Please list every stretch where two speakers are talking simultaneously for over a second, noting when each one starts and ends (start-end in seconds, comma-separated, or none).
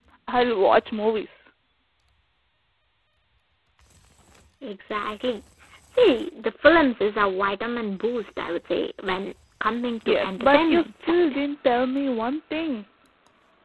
10.1-11.4